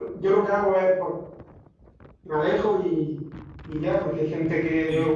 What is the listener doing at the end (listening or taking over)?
listening